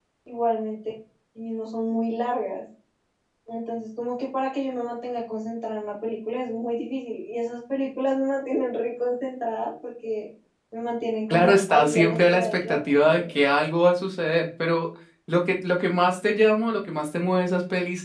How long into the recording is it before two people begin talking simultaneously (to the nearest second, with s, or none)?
11 s